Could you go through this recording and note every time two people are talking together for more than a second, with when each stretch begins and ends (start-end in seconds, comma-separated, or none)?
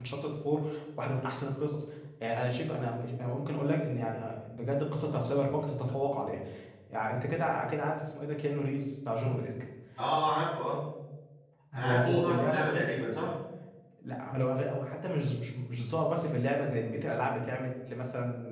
11.7-12.9